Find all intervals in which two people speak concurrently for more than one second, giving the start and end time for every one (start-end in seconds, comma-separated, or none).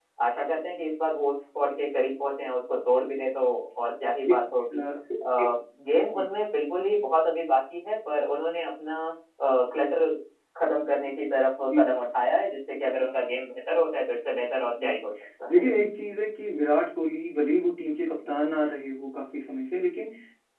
none